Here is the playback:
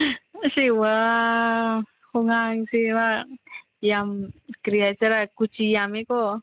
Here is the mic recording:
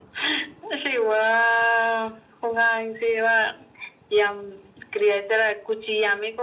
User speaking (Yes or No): No